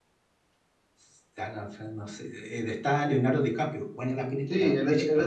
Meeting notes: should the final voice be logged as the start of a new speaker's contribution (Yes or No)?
Yes